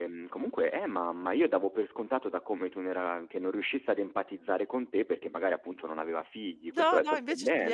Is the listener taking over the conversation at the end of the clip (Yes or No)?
Yes